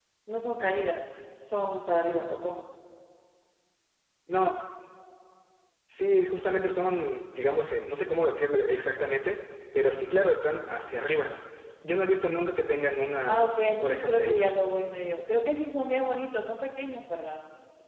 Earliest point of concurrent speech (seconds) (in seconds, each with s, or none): 13.3 s